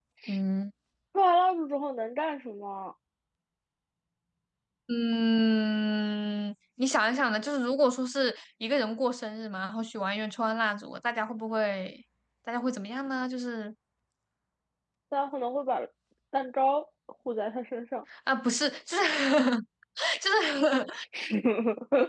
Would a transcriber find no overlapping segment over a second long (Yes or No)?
Yes